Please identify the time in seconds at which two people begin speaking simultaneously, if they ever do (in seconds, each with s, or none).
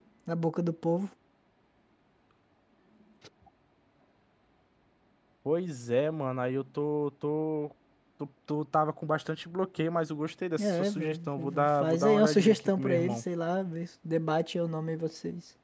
10.6 s